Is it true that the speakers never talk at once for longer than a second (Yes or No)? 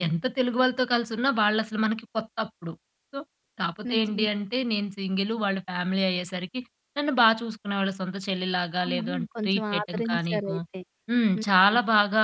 No